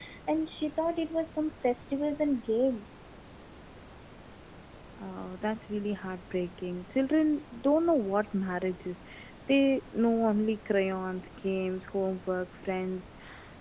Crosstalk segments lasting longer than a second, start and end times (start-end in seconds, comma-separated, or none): none